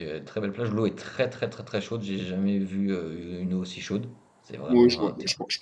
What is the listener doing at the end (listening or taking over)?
taking over